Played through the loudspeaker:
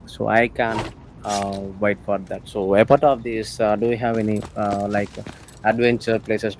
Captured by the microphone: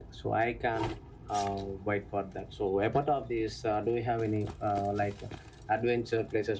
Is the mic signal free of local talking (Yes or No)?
Yes